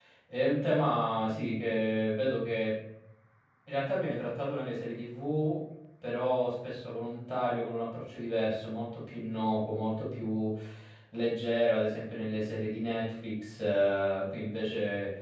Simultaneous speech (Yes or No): No